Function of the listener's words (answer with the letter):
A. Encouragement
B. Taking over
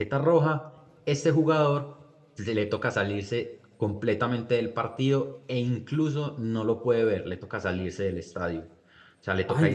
B